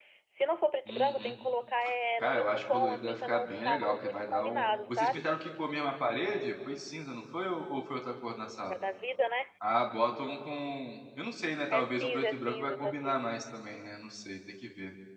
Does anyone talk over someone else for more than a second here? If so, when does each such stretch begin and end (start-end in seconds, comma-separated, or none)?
2.2-5.2, 11.7-13.3